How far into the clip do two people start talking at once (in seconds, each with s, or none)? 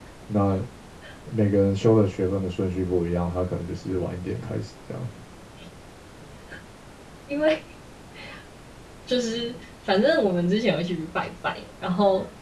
none